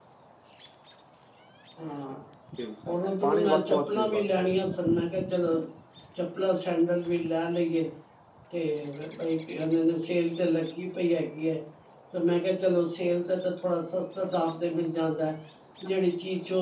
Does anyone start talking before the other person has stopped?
Yes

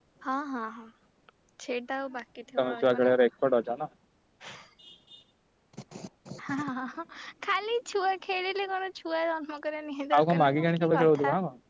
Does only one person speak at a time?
No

